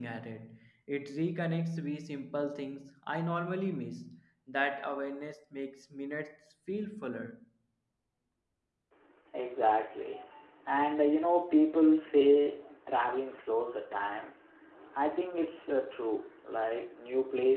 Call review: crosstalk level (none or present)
none